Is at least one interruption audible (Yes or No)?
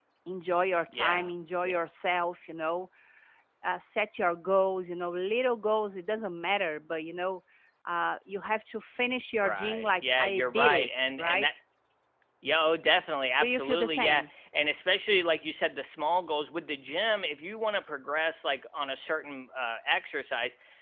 Yes